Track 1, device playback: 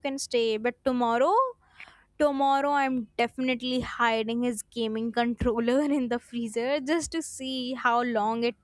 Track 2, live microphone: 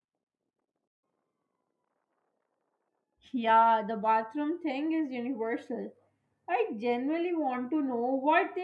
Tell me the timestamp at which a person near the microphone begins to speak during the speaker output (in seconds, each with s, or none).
3.3 s